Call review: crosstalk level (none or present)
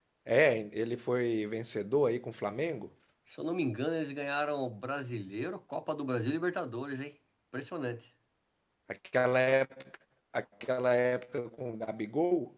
none